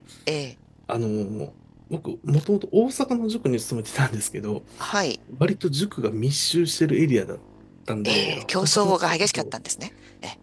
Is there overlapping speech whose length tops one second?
Yes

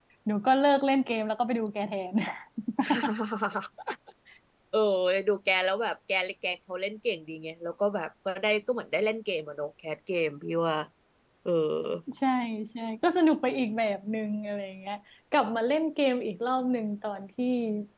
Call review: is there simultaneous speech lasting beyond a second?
No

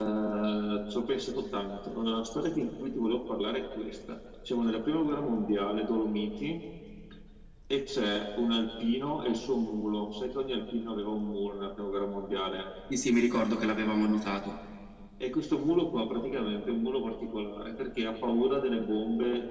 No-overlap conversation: Yes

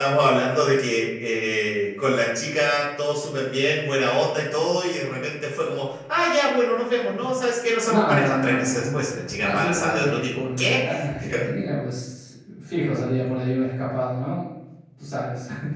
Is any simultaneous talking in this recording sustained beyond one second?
Yes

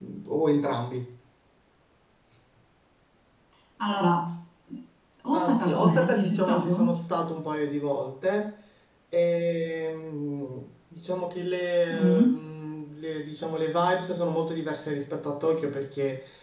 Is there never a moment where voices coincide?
No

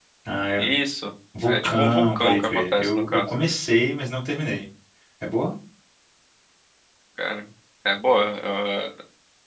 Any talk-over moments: Yes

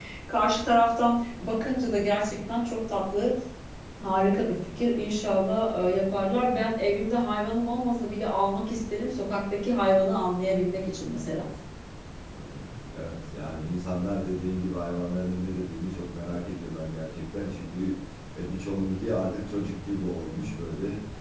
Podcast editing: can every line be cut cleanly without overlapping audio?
Yes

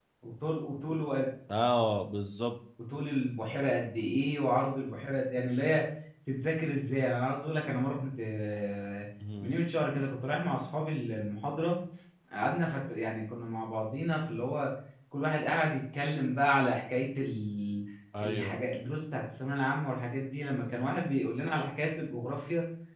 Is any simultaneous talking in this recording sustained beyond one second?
No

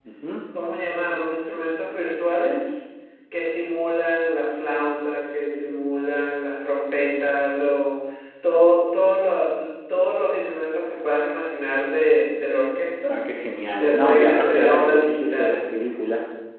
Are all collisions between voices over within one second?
No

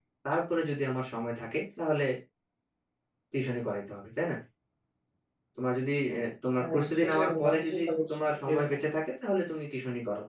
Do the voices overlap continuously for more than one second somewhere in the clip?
Yes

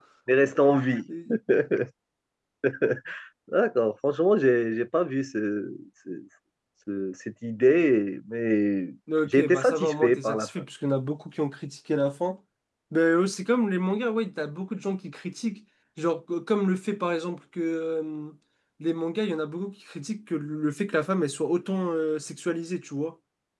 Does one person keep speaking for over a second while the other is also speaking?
Yes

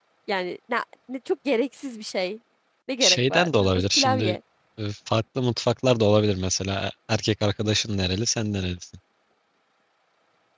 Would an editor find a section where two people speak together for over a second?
Yes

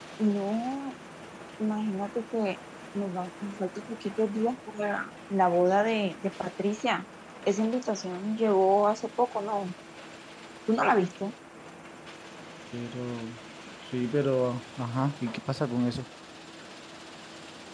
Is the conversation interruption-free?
Yes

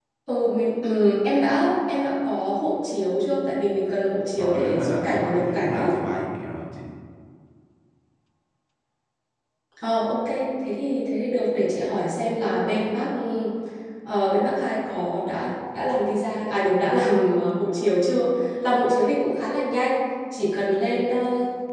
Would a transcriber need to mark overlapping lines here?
Yes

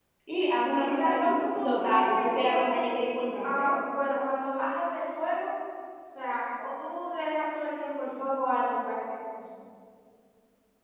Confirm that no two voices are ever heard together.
No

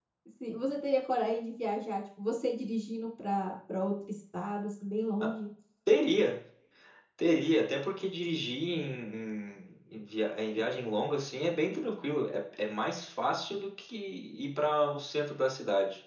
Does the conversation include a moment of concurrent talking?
No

